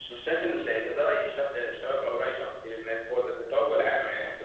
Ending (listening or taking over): taking over